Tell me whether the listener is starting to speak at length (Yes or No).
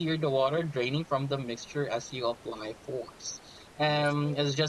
No